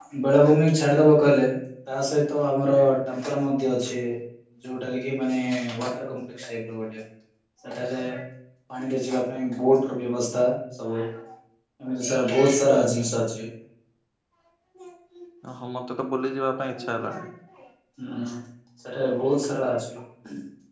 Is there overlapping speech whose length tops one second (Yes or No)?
No